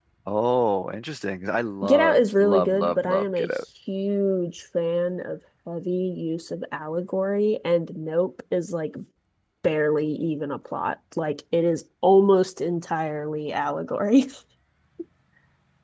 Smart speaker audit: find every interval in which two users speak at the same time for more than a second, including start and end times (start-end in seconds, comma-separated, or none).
1.8-3.5